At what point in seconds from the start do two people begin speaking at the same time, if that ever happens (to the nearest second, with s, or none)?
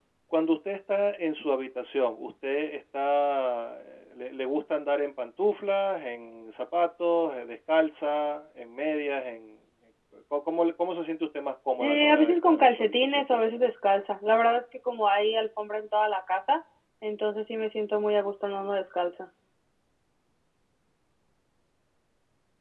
12 s